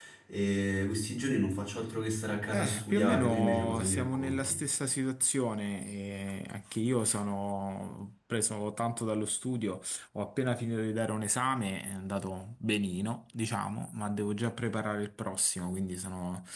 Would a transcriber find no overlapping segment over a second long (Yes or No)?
No